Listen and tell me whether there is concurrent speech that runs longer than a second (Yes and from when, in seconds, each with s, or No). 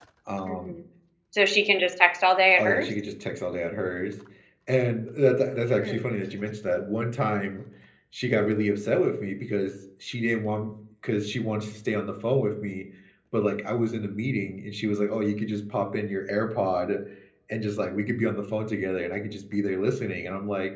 No